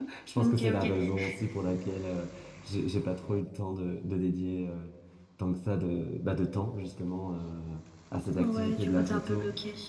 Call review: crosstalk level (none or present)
present